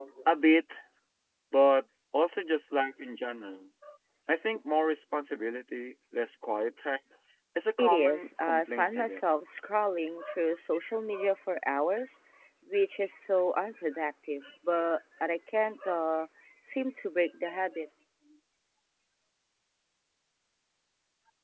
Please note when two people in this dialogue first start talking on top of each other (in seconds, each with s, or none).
7.8 s